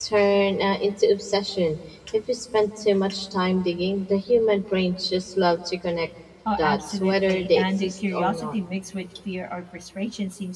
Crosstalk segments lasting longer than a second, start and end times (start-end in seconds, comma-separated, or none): 6.6-8.6